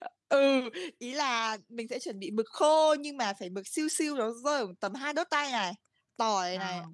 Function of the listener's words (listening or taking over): listening